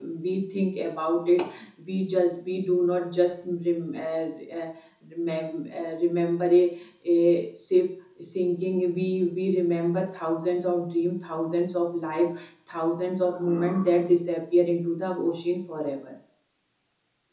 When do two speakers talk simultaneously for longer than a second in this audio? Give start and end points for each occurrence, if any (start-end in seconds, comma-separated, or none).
none